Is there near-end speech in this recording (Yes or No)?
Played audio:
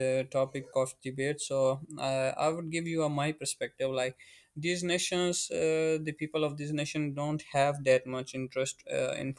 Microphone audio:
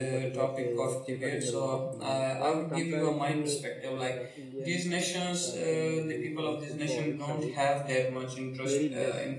Yes